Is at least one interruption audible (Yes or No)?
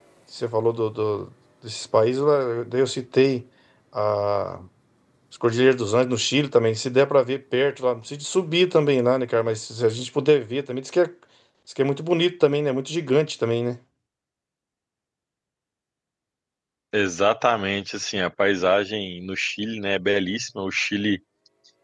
No